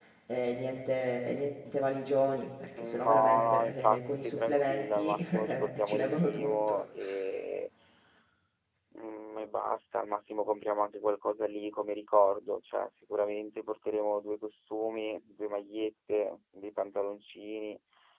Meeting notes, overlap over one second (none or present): present